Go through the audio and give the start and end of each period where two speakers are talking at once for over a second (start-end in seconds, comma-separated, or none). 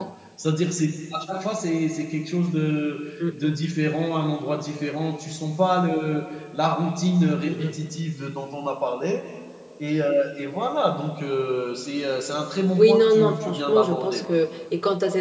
12.8-14.3